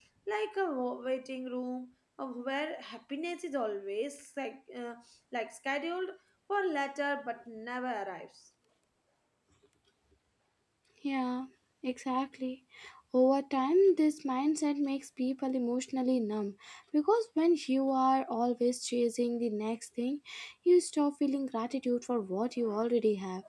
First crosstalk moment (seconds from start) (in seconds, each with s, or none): none